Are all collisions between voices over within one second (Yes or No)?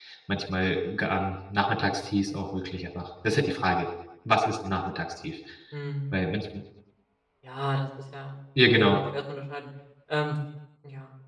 Yes